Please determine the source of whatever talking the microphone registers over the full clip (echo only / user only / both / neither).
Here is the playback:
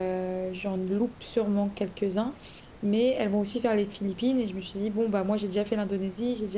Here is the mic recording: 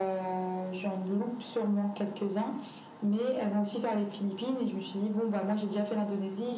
echo only